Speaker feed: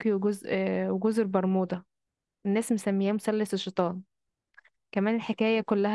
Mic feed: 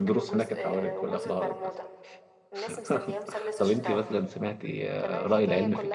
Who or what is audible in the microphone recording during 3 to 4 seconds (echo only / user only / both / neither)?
both